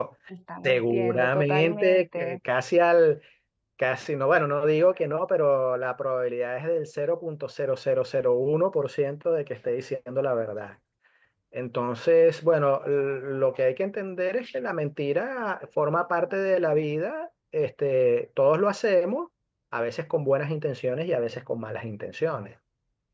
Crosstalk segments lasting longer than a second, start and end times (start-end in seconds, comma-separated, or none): 0.6-2.4